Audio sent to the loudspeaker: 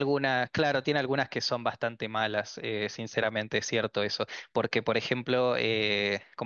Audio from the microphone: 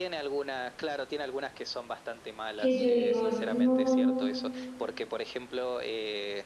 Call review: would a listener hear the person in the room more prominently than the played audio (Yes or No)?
Yes